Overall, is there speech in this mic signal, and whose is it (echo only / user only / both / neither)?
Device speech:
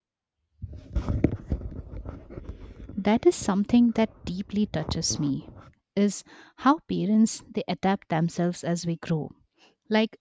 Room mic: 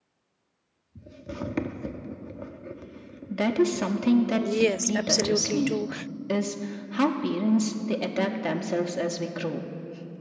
both